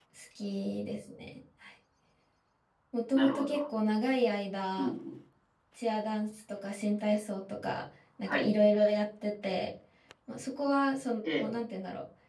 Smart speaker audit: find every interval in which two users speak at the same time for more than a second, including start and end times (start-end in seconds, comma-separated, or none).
none